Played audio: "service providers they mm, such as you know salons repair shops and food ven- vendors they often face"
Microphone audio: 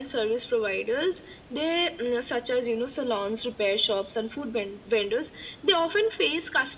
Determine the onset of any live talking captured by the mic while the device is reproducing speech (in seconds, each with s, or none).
none